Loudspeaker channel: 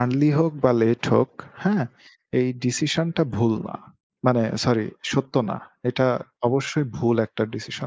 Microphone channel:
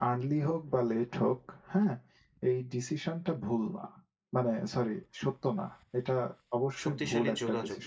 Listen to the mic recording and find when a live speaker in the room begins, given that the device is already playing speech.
6.8 s

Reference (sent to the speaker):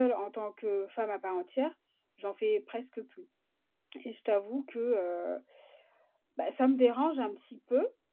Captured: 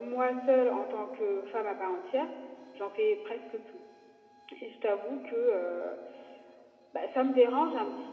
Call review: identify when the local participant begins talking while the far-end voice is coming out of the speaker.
none

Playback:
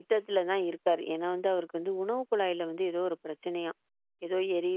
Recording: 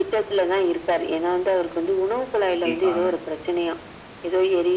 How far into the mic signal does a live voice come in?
2.5 s

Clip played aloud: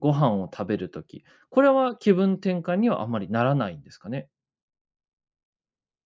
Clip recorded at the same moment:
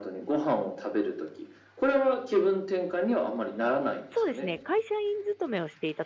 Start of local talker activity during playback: 4.1 s

